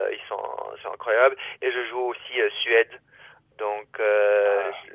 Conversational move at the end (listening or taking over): listening